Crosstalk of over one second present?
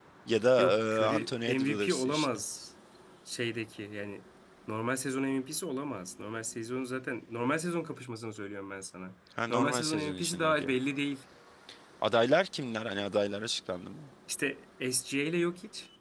Yes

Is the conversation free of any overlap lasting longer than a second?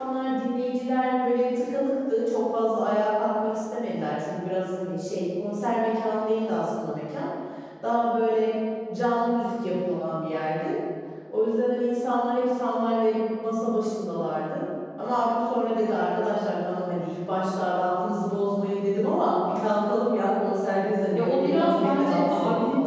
No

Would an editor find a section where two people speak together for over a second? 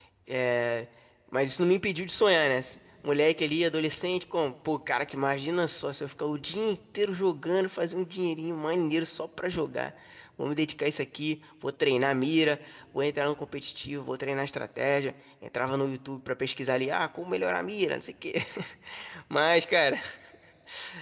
No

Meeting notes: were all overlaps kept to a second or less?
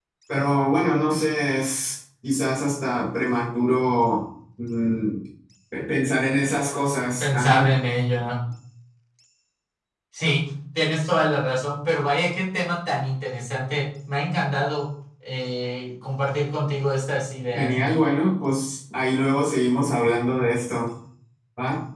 Yes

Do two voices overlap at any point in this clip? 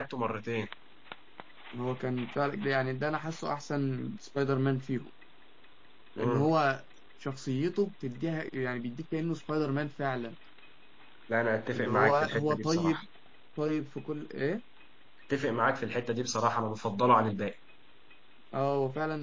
Yes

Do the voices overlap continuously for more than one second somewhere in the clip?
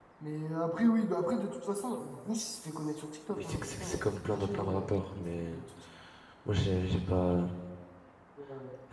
Yes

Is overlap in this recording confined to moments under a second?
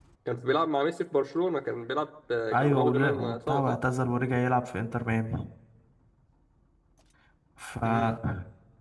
No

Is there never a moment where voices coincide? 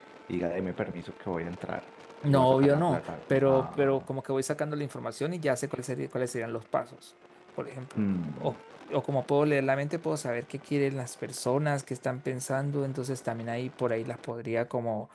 No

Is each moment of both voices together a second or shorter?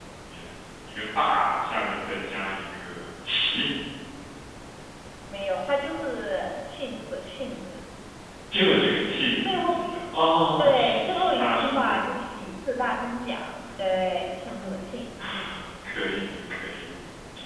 No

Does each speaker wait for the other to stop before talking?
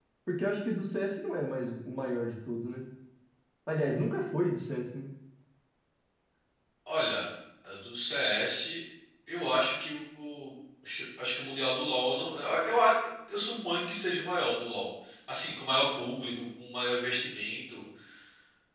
Yes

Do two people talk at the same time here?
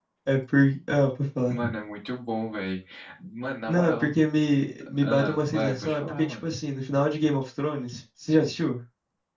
Yes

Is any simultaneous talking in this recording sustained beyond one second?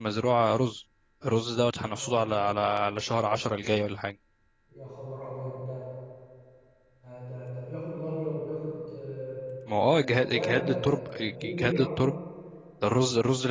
Yes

